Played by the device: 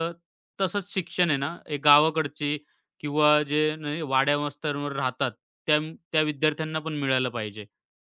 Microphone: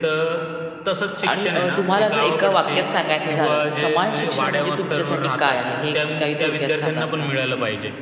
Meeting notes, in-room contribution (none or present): present